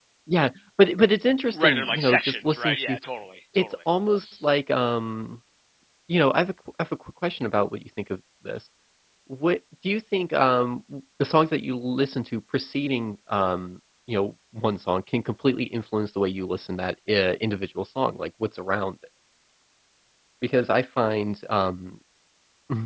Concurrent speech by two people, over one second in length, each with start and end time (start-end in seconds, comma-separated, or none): 1.5-3.0